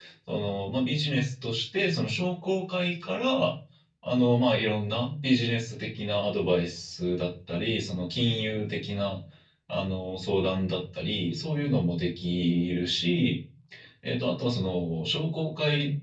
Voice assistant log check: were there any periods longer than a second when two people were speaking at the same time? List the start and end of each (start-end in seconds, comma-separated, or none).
none